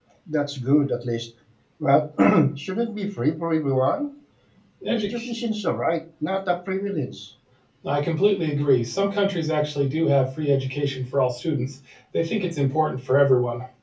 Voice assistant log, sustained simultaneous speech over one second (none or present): none